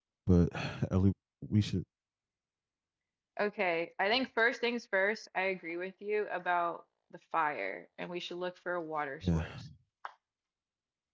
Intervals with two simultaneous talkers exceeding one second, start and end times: none

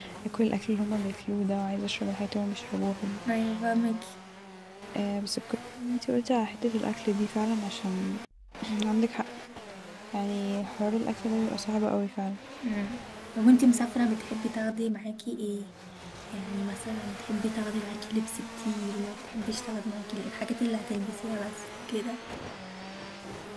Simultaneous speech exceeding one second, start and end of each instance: none

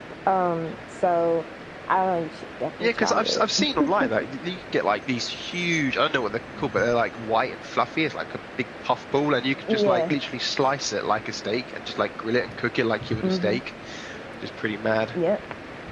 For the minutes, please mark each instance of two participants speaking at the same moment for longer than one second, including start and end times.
2.8-4.1

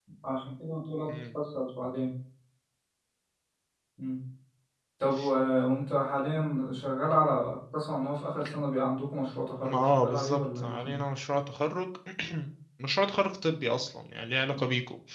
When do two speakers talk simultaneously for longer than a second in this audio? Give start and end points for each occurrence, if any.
9.6-11.0

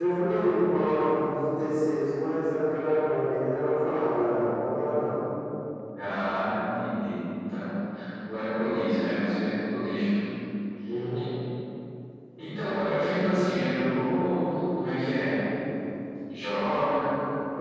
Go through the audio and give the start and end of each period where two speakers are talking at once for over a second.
none

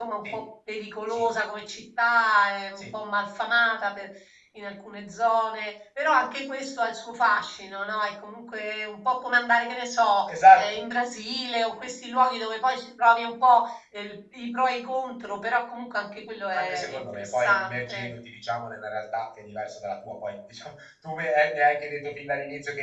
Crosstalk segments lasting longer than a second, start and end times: 16.5-18.1

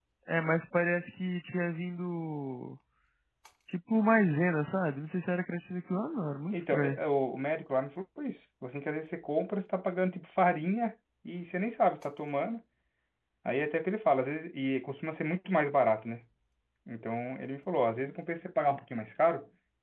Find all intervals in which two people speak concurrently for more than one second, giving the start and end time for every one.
none

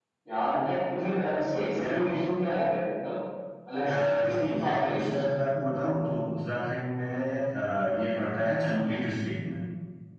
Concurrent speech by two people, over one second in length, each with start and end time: 3.8-5.2

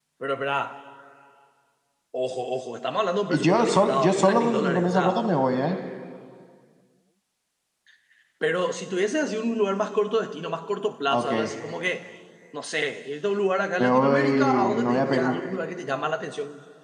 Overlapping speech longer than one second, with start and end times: 3.3-5.2, 13.8-15.4

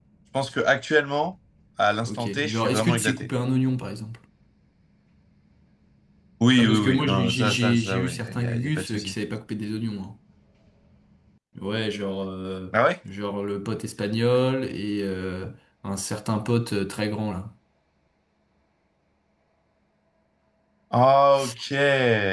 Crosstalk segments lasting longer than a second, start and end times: 2.1-3.3, 6.6-9.1

